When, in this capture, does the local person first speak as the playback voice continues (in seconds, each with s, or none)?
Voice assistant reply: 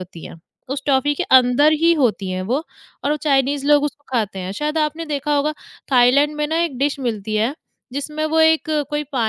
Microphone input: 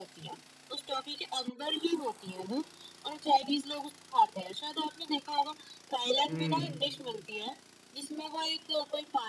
6.3 s